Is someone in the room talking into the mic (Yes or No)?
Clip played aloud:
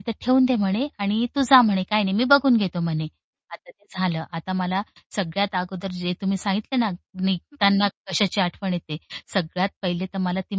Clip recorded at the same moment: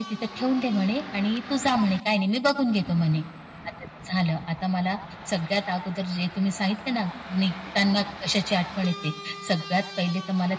No